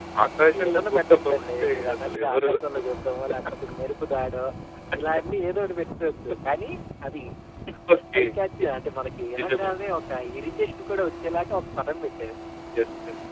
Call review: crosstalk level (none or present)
present